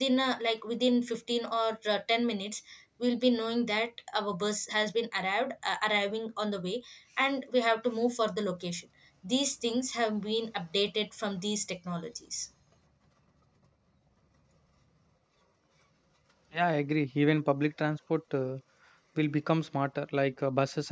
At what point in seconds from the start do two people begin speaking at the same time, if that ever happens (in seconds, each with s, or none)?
none